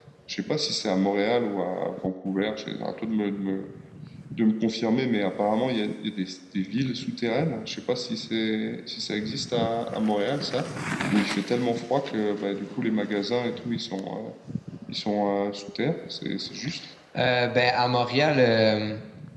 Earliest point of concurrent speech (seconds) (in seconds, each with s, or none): none